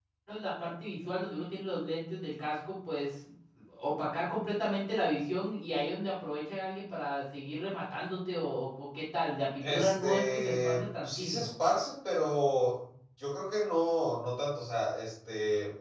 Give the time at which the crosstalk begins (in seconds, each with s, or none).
9.6 s